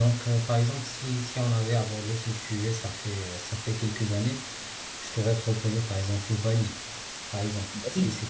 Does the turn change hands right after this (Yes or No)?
No